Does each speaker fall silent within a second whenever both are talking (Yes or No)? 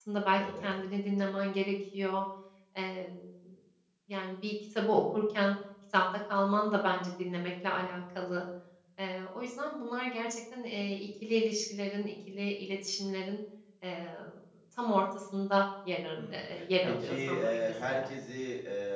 No